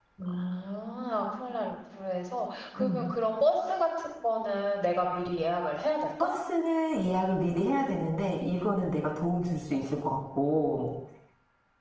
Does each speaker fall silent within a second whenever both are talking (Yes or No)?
Yes